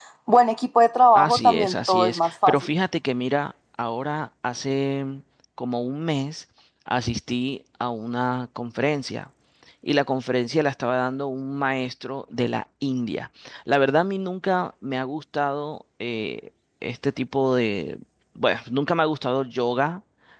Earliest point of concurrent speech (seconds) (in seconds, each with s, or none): 1.1 s